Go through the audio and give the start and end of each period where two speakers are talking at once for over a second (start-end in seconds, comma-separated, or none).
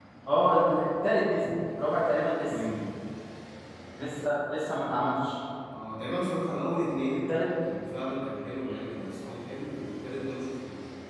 none